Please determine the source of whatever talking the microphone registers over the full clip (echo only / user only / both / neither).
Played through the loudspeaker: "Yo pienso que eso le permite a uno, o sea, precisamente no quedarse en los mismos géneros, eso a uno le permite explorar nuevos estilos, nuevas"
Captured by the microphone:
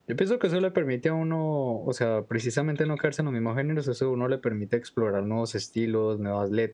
echo only